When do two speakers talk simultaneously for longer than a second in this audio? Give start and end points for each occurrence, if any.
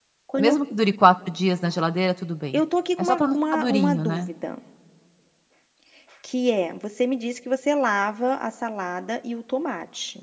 3.0-4.3

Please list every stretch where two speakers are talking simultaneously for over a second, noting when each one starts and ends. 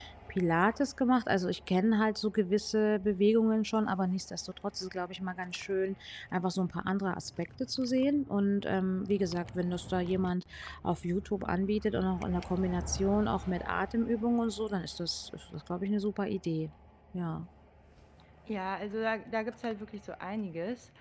none

